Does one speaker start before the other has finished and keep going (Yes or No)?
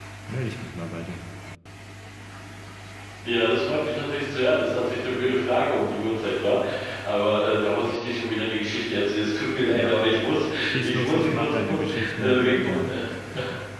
Yes